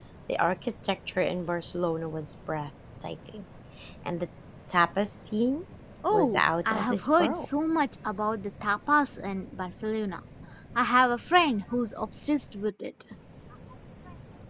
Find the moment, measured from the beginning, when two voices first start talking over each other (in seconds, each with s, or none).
6.1 s